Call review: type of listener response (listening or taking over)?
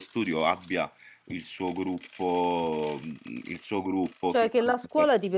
taking over